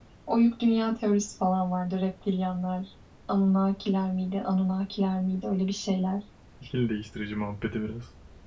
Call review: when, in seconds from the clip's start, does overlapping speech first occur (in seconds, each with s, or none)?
none